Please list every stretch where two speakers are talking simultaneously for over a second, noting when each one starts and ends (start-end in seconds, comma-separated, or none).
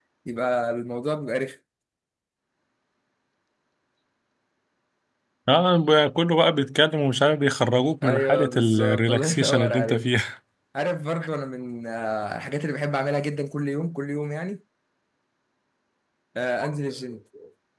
8.0-10.0